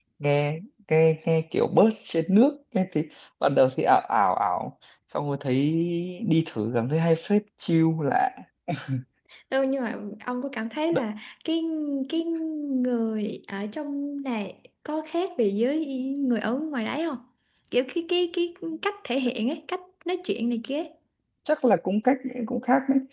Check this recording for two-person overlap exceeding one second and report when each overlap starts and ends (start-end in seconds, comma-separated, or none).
none